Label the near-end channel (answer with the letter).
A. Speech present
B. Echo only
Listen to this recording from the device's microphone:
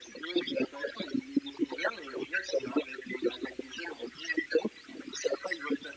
B